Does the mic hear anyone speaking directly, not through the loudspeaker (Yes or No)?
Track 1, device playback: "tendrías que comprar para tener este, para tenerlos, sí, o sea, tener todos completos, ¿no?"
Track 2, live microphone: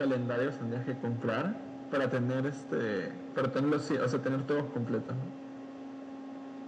No